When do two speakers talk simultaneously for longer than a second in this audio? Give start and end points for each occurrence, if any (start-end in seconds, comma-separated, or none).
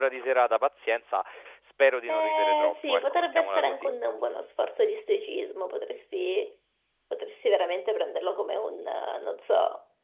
2.1-3.7